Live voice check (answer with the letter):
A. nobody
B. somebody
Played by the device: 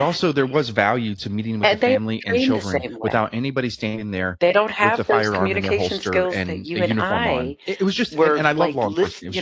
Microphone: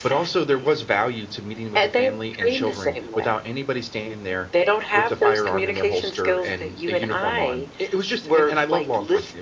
A